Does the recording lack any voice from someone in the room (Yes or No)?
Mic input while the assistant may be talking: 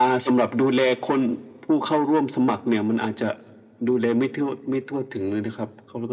Yes